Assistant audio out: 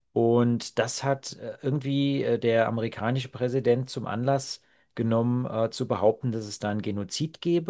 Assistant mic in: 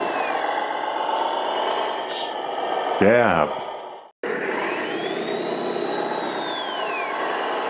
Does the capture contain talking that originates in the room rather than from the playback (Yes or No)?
Yes